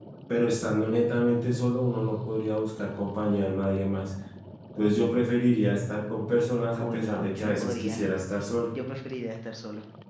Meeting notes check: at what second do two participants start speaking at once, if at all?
6.7 s

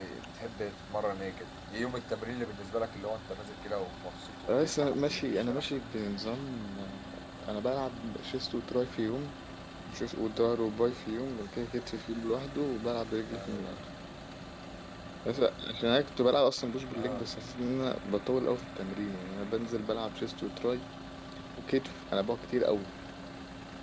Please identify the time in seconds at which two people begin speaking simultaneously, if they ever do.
4.5 s

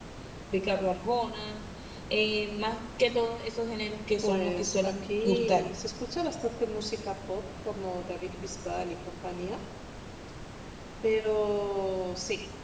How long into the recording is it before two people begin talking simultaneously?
4.2 s

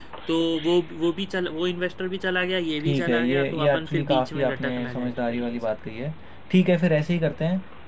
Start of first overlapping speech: 2.8 s

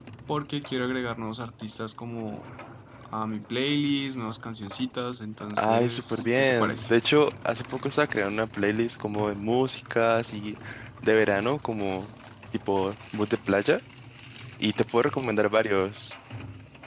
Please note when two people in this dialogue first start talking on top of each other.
5.5 s

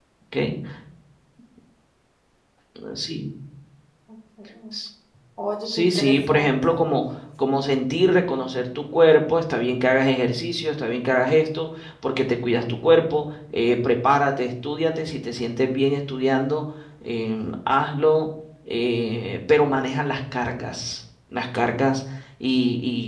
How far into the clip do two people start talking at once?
5.6 s

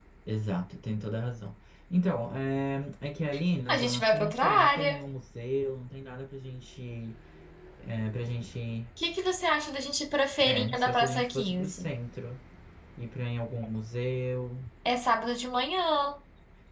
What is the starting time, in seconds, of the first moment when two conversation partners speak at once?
3.7 s

